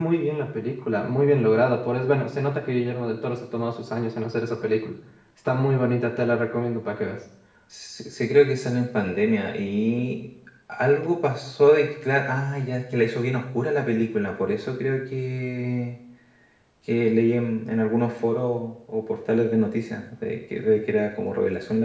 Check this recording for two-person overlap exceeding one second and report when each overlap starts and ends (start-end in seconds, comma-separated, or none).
none